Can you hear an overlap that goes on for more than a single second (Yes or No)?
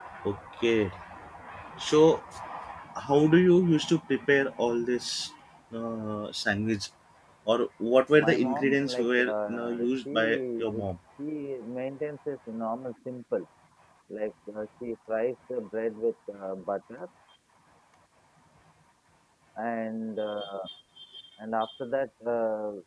Yes